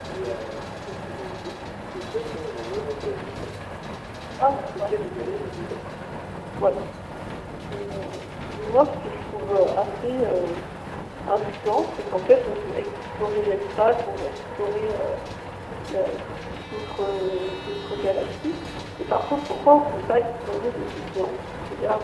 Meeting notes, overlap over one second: none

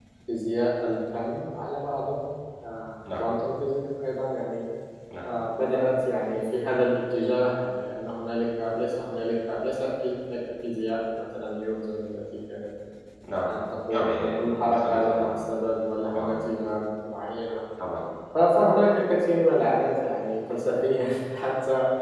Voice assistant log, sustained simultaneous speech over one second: present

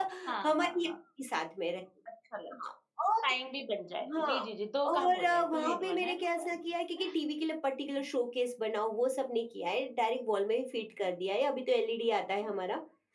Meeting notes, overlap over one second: present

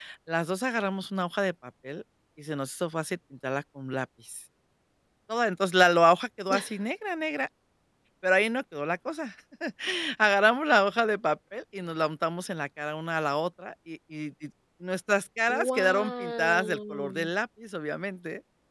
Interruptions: present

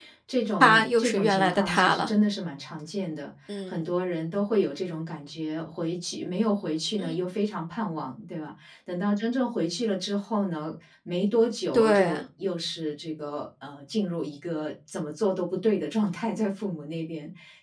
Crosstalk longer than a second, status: present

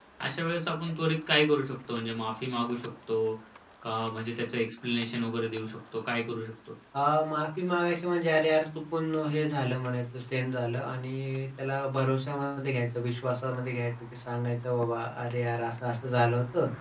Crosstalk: none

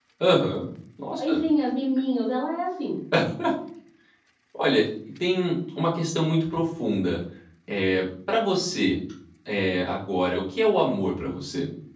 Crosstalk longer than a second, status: none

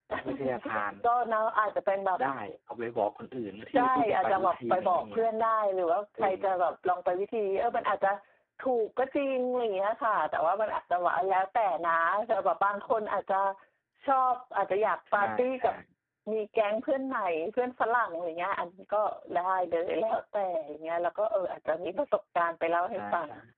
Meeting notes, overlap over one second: present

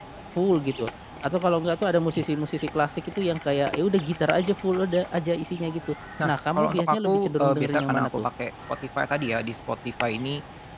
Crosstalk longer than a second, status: present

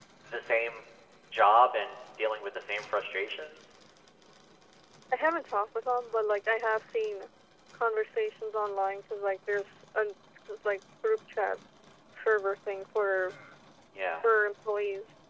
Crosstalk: none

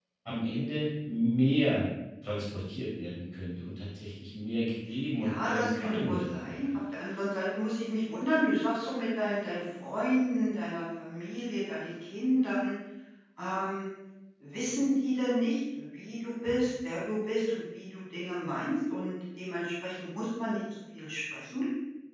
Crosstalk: present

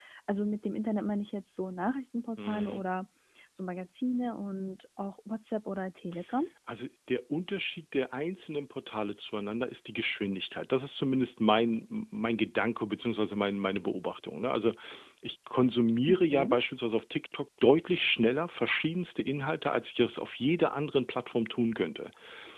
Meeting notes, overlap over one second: none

